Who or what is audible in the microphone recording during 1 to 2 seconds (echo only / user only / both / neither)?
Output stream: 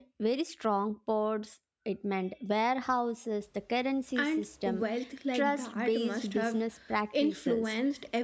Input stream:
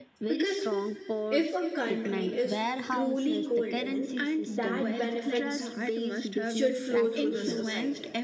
both